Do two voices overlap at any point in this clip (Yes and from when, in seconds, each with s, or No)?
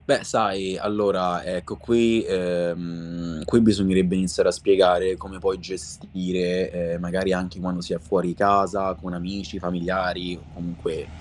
No